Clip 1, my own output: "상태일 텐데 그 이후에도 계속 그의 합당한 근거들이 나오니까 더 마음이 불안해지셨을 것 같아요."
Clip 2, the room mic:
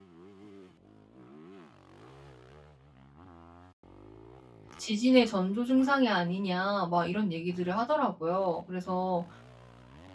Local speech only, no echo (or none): "지진의 전조 증상이 아니냐." 막 이런 얘기들을 하더라고요. 그래서